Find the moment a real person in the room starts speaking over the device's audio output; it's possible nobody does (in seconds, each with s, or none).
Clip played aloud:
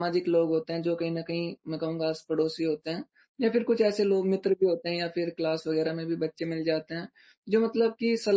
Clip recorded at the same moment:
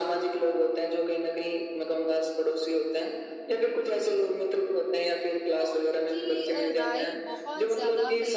5.6 s